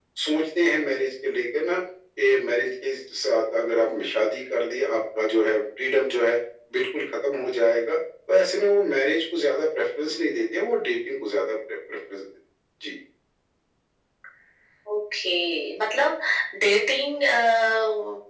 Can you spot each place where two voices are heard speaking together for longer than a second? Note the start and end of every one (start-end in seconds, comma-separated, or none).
none